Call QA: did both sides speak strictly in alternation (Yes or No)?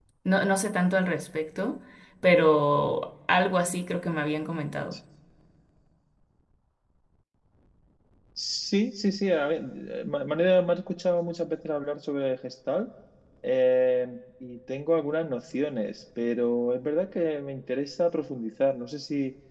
Yes